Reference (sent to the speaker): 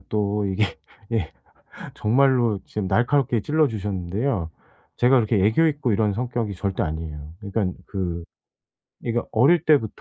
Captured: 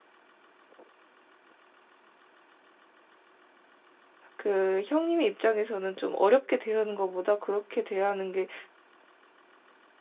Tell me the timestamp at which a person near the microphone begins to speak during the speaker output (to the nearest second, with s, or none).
4 s